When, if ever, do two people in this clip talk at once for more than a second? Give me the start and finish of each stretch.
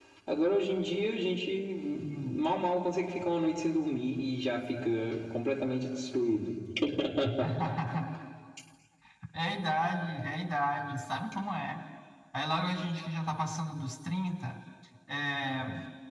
none

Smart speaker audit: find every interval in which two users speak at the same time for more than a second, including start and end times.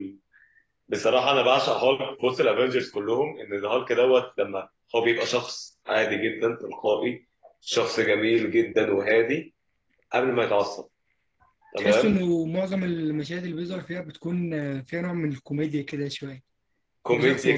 none

